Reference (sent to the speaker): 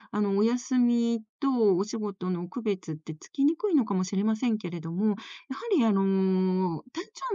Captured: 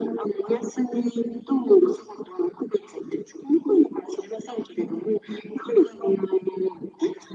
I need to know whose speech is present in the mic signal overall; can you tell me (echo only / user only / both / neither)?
echo only